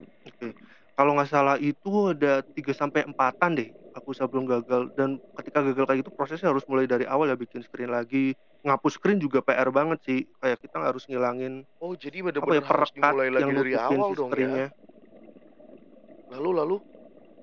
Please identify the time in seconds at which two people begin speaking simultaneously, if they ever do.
12.4 s

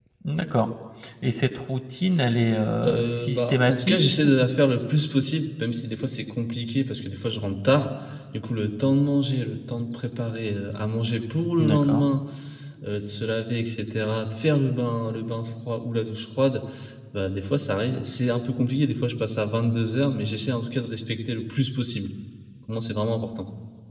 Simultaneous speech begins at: 2.8 s

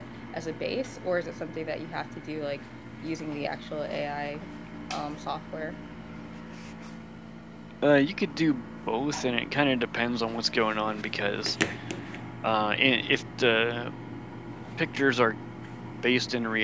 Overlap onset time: none

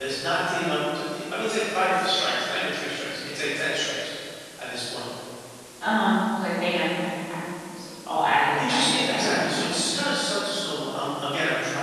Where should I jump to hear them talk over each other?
8.6 s

